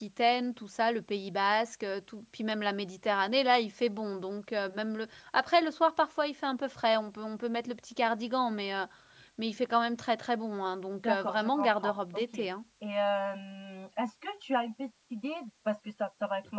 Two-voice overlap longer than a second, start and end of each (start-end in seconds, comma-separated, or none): 11.0-12.5